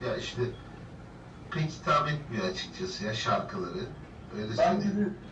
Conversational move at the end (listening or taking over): taking over